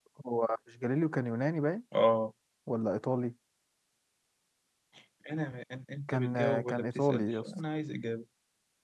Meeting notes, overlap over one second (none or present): present